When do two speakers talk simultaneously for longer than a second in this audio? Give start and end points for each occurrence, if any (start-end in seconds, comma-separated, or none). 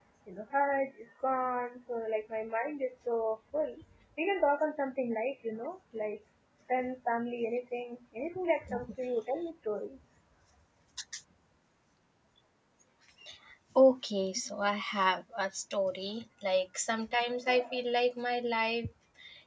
none